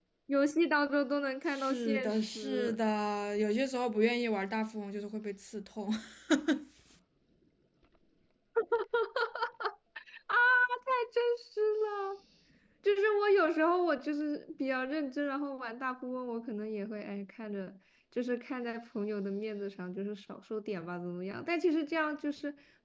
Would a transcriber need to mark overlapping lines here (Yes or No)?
Yes